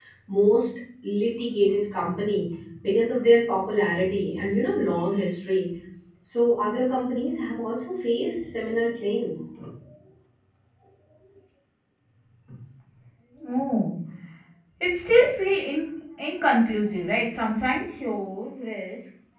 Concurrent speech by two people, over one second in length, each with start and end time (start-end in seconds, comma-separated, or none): none